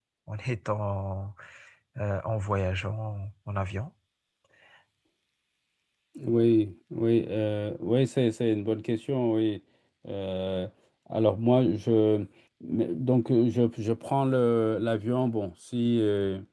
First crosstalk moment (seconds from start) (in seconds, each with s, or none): none